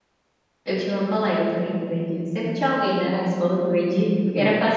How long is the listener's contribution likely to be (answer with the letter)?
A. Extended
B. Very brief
B